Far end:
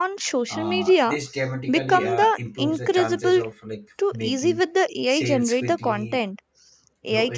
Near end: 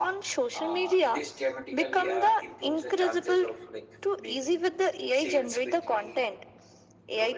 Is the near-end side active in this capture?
No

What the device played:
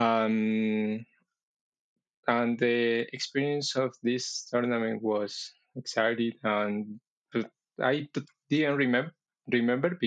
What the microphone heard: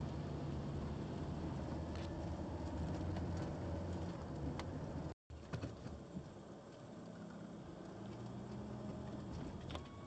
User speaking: No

